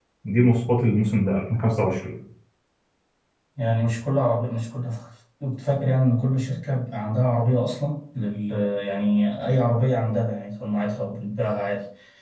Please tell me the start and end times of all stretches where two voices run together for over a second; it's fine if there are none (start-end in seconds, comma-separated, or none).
none